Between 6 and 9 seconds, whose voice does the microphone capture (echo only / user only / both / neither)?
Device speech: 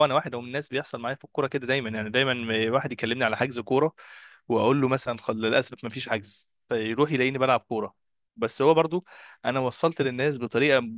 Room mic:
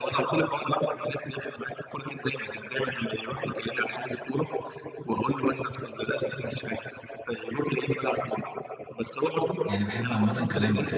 echo only